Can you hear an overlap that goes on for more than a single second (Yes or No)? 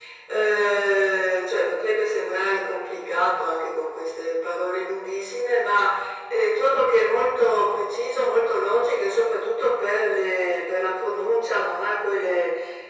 No